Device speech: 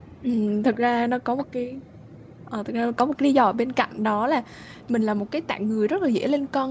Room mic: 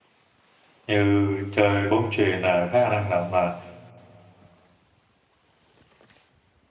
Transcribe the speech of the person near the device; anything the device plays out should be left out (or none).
như chơi bóng chuyền là khá là năng động mà